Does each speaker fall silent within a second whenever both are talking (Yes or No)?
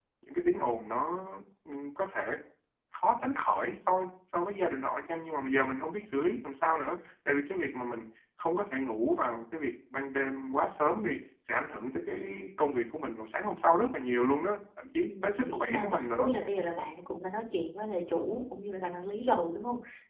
No